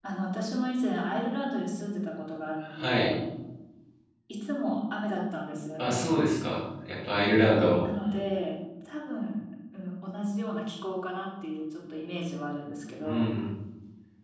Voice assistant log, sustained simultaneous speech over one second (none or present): none